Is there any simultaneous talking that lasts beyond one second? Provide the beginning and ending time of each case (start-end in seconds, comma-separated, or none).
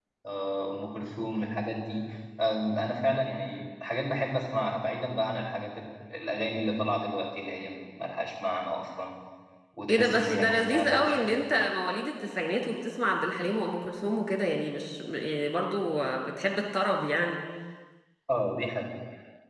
9.9-11.3